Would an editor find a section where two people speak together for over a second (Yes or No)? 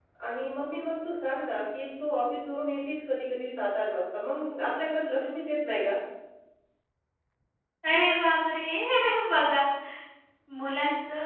No